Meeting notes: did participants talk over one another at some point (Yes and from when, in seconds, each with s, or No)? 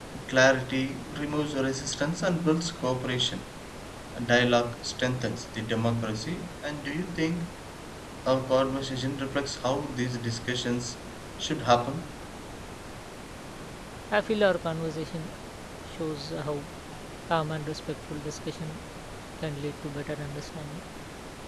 No